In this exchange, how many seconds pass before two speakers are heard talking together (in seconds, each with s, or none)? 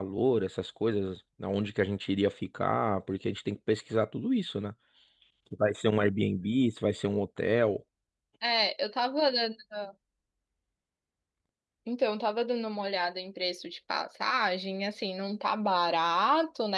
none